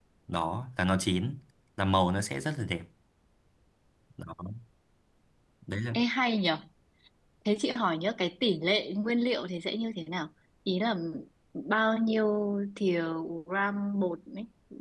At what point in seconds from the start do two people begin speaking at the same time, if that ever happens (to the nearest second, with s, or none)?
none